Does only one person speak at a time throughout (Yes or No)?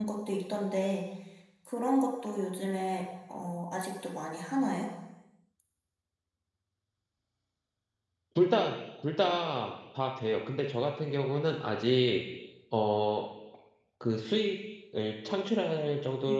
Yes